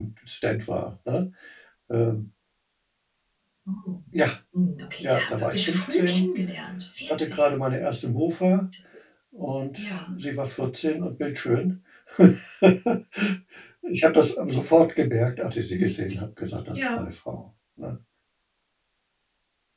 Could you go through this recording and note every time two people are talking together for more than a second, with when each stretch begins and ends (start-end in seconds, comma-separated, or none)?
5.0-6.2